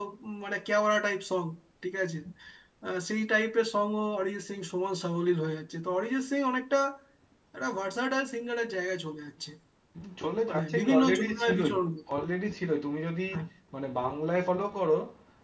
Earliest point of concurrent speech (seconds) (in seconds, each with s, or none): 10.5 s